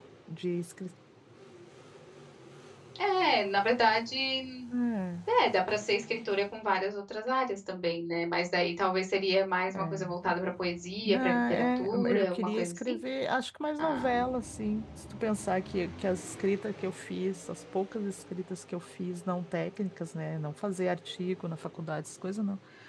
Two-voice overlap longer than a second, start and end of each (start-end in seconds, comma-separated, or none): 11.1-12.9